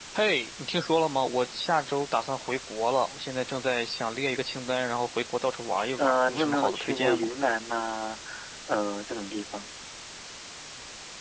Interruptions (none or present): present